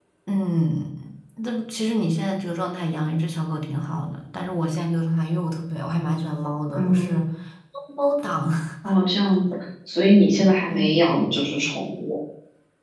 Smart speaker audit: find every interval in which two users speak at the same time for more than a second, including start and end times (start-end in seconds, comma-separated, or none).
none